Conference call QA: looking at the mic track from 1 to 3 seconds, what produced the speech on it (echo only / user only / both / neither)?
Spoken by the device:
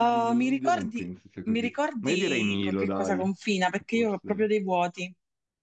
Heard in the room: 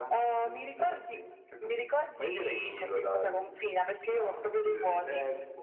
echo only